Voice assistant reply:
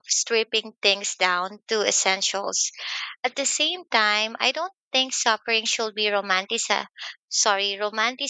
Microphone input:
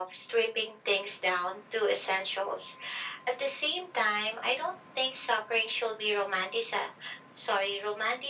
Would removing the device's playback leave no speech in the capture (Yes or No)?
Yes